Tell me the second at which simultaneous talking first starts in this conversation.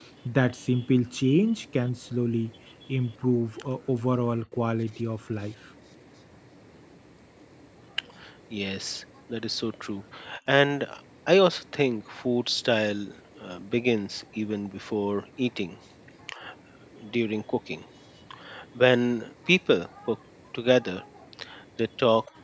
none

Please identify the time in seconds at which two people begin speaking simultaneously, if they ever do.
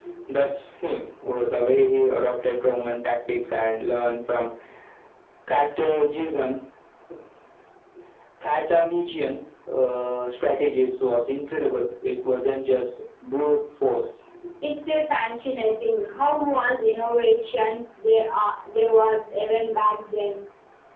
none

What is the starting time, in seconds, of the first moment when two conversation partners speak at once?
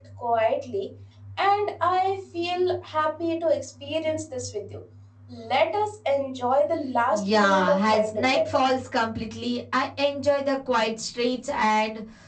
7.1 s

